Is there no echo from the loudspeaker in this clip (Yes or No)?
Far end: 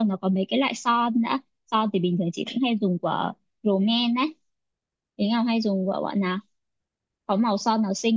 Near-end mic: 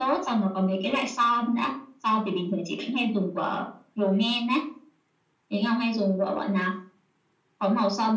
No